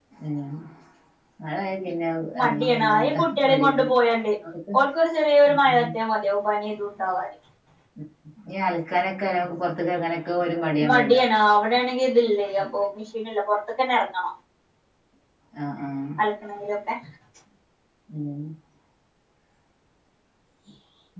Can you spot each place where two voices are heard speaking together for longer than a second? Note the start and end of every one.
2.4-3.9

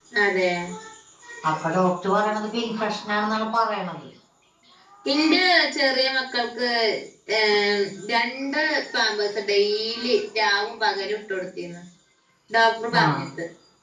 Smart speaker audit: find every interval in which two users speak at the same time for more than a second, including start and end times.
none

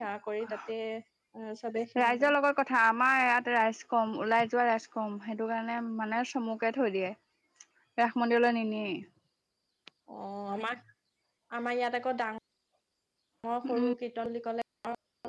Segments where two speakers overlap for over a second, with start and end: none

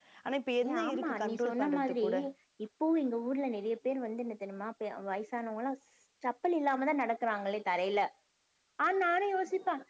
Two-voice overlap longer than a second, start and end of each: 0.7-2.0

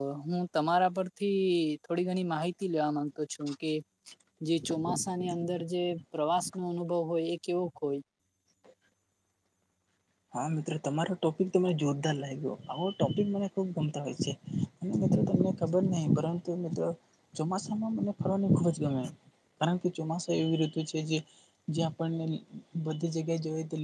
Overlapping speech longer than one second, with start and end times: none

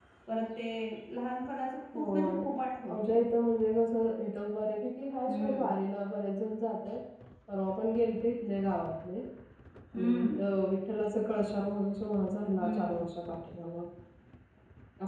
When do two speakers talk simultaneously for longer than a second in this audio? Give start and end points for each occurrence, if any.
none

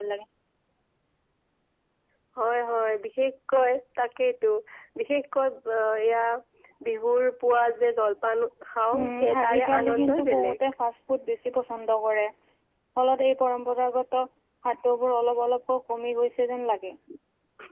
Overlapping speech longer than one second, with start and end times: 9.0-10.6

